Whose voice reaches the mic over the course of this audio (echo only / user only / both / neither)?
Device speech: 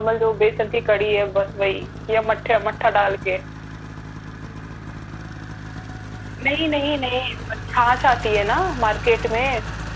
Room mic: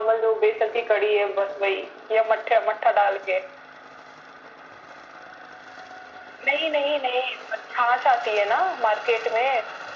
echo only